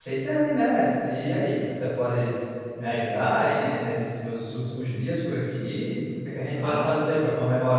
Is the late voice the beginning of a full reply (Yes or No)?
No